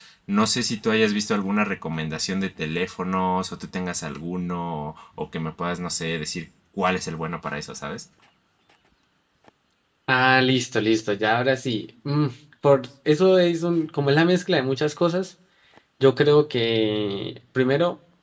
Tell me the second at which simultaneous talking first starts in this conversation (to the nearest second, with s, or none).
none